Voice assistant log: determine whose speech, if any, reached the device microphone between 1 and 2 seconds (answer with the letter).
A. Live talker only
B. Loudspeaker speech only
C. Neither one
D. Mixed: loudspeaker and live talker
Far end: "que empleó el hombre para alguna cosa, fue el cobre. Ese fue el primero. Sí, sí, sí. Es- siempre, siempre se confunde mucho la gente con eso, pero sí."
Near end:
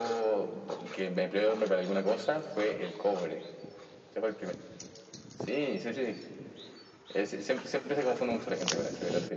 B